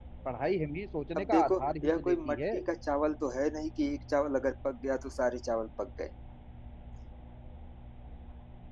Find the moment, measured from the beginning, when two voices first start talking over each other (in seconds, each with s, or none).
1.2 s